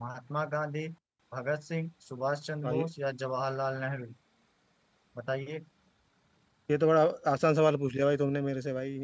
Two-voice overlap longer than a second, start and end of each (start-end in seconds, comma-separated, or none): none